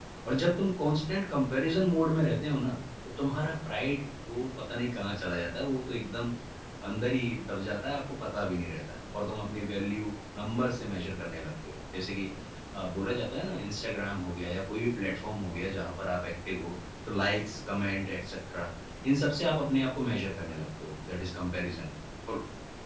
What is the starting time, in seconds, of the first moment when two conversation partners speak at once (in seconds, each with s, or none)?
none